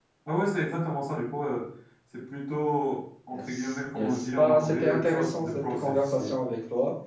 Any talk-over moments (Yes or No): Yes